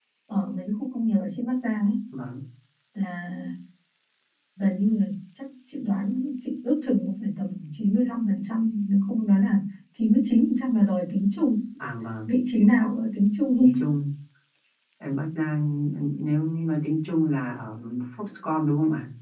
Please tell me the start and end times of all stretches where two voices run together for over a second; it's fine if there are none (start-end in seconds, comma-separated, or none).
none